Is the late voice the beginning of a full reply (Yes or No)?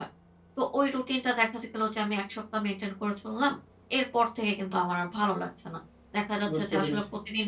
No